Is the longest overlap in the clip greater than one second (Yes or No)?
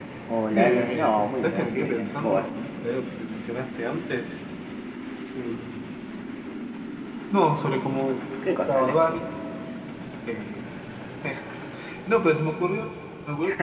Yes